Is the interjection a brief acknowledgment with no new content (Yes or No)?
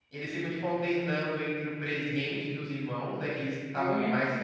Yes